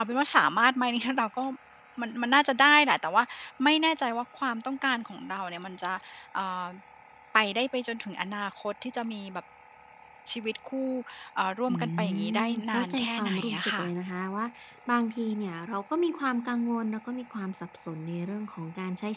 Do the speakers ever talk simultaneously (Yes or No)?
Yes